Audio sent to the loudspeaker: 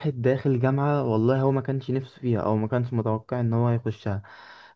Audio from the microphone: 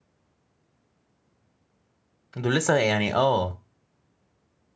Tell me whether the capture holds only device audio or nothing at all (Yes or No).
No